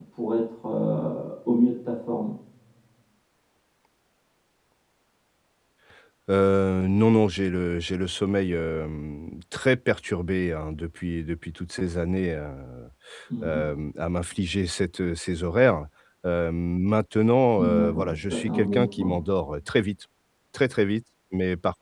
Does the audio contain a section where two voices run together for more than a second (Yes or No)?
Yes